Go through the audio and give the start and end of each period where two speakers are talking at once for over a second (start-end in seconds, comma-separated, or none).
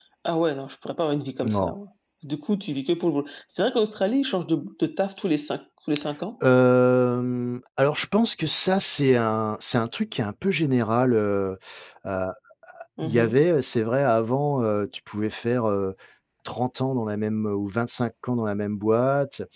none